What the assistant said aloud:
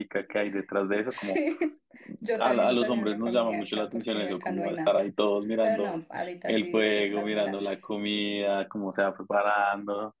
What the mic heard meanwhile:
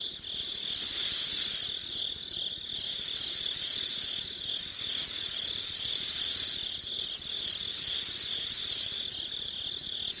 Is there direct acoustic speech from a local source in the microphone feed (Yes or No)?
No